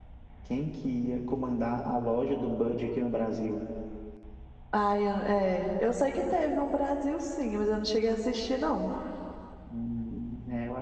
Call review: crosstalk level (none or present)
none